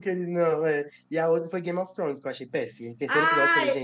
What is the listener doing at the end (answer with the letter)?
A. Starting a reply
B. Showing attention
A